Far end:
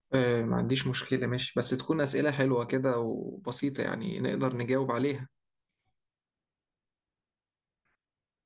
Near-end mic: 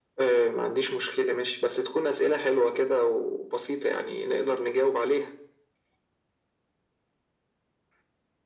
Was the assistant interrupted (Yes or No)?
No